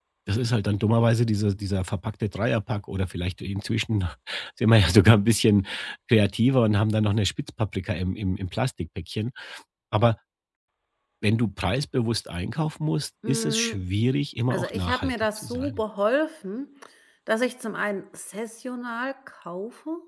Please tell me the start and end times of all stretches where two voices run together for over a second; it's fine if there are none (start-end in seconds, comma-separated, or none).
14.5-15.8